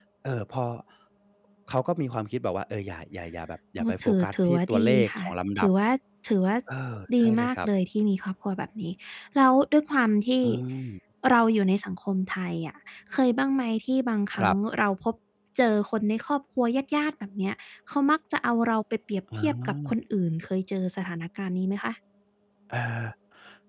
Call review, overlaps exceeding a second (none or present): present